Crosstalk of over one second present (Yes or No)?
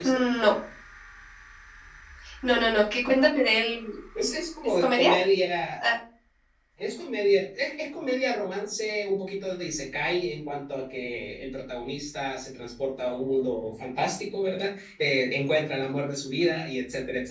No